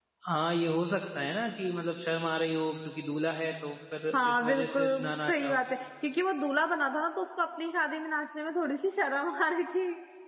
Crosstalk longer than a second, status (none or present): present